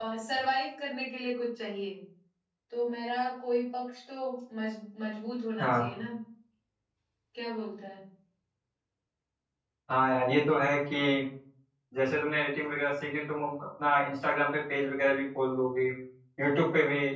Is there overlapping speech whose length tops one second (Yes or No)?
No